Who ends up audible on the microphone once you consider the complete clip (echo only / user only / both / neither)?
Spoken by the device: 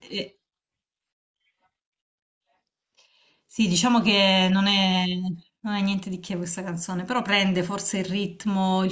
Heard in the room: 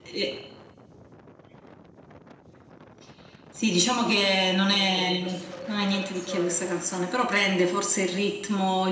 both